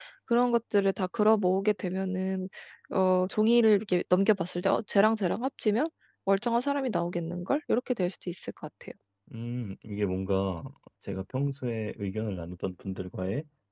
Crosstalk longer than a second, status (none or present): none